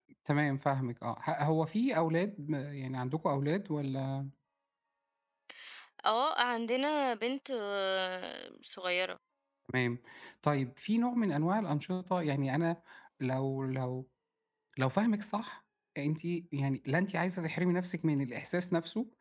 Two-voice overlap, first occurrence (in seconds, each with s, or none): none